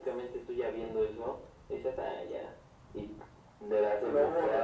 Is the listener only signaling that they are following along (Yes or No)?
Yes